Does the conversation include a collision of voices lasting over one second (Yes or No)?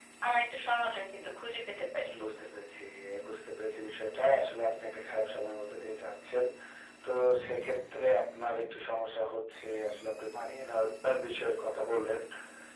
No